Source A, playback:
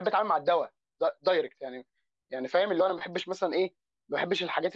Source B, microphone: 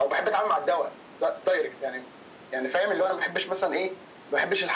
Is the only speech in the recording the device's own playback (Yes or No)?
Yes